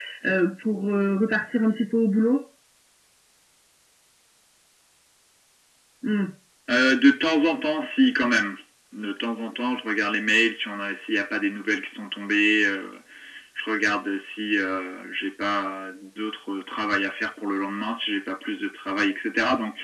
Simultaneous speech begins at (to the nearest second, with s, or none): none